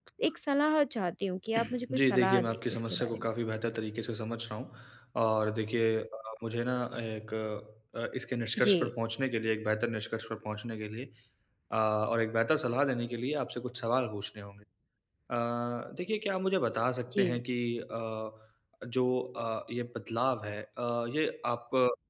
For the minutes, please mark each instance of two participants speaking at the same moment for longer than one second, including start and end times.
1.6-3.2

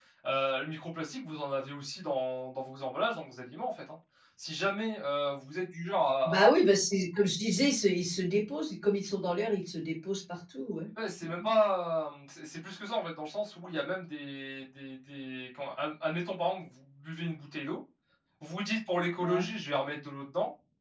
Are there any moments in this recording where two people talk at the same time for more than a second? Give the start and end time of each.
none

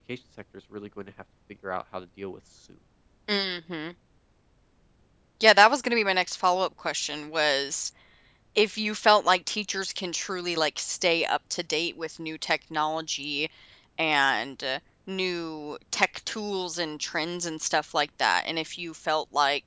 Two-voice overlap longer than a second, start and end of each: none

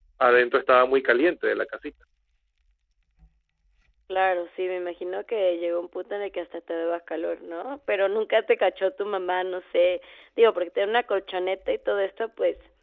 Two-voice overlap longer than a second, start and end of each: none

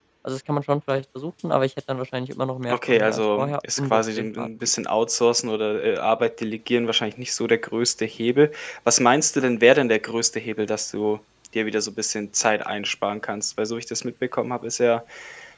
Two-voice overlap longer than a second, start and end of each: 2.7-4.5

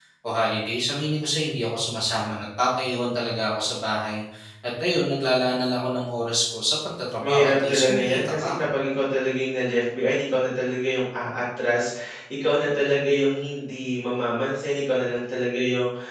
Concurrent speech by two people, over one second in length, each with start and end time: 7.2-8.6

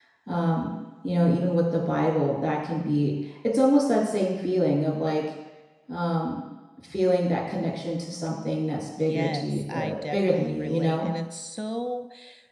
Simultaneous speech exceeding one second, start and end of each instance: 9.0-11.1

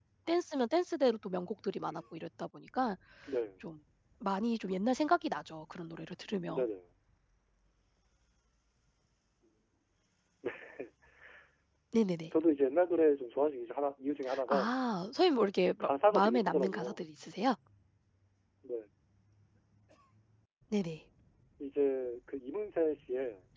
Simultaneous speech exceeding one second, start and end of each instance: 15.8-17.0

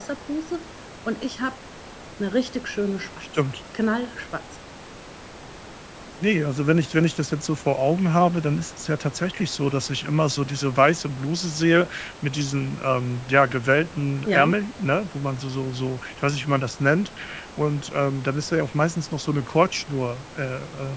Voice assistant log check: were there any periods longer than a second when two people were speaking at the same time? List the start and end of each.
none

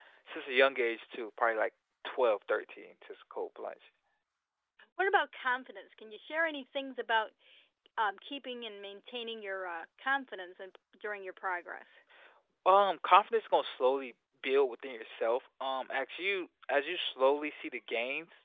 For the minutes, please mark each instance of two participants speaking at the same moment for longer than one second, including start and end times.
none

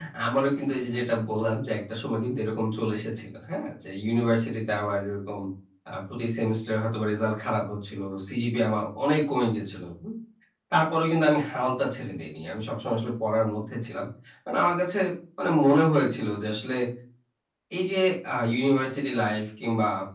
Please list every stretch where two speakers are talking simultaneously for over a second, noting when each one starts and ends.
none

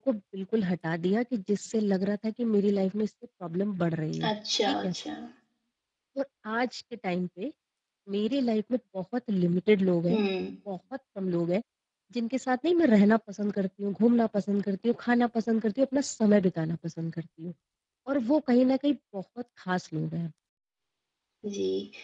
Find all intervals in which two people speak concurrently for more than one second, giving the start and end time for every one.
none

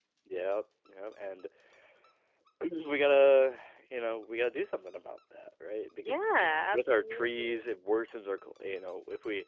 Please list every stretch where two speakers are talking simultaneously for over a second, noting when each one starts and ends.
6.0-7.6

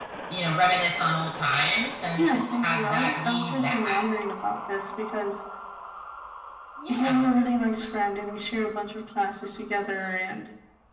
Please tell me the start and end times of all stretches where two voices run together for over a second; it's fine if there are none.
2.2-4.0

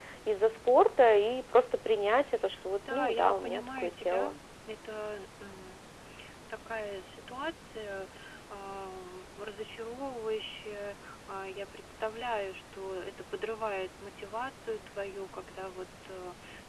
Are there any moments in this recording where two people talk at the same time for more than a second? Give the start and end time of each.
2.9-4.3

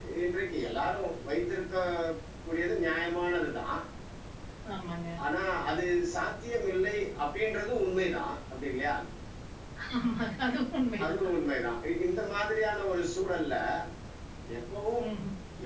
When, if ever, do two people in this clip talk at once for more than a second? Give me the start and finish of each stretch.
none

